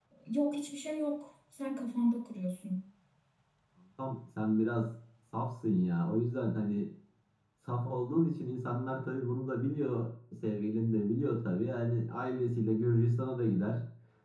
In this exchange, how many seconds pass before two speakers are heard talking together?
none

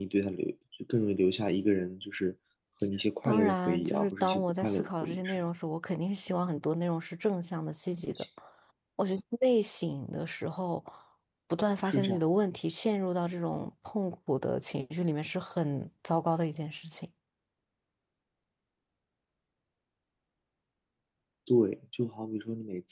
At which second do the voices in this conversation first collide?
3.2 s

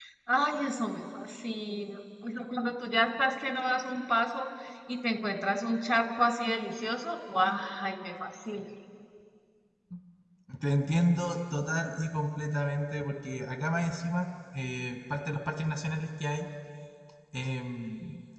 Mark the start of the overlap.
none

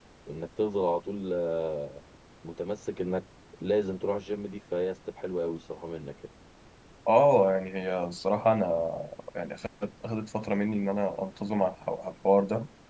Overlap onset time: none

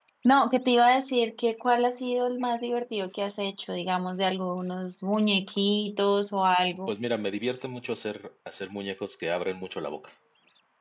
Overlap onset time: none

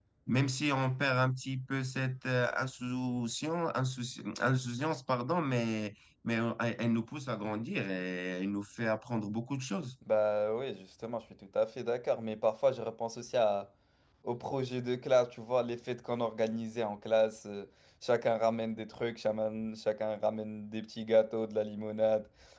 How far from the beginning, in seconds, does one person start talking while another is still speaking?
none

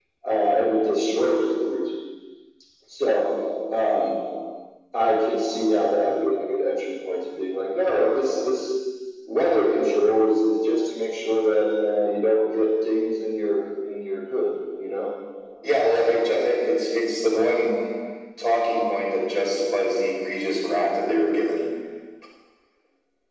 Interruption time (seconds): none

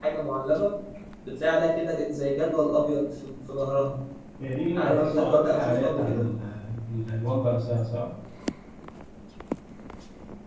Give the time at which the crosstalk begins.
4.8 s

